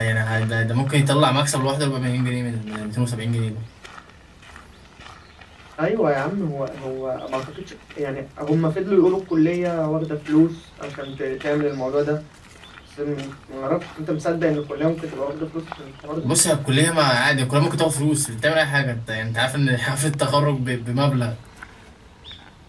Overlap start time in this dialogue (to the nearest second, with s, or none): none